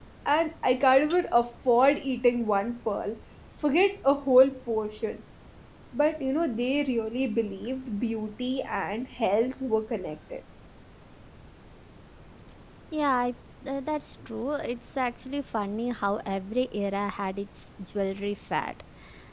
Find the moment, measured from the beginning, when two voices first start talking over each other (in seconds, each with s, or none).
none